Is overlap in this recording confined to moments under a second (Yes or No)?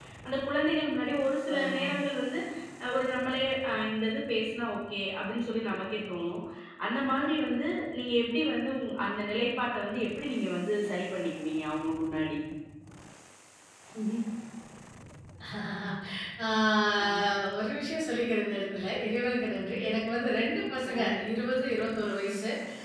Yes